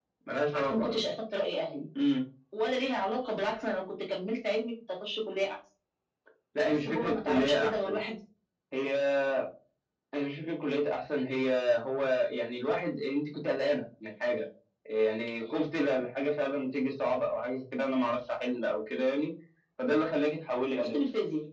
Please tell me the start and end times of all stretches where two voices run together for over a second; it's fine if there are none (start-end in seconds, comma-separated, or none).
6.7-8.0